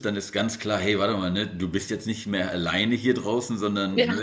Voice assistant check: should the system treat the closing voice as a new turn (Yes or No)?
No